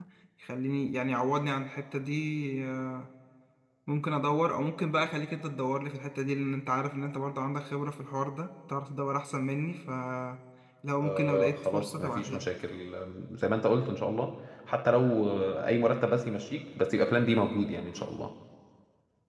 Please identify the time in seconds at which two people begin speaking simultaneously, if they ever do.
11 s

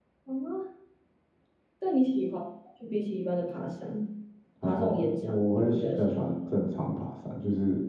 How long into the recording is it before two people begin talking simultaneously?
5 s

